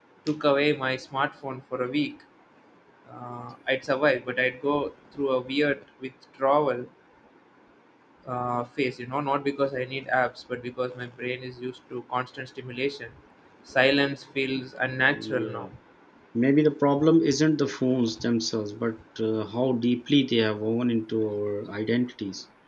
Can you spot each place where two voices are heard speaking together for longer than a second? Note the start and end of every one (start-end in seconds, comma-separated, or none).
none